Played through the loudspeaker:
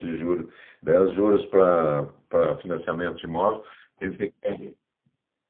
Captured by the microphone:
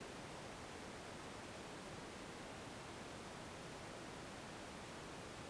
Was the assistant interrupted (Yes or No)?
No